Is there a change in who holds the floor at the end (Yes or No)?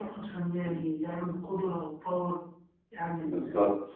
Yes